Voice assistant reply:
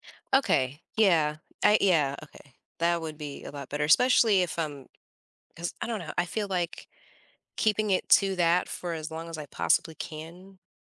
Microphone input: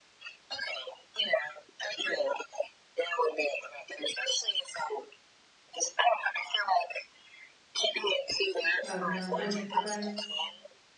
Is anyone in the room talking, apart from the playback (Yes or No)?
Yes